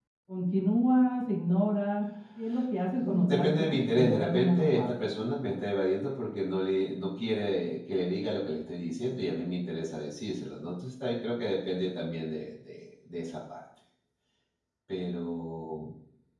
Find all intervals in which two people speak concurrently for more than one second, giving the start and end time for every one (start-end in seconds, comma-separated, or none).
3.0-5.0